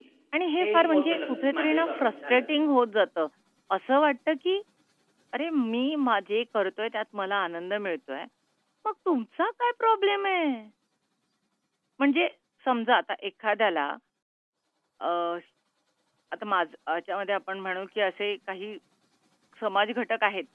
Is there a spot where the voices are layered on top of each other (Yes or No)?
Yes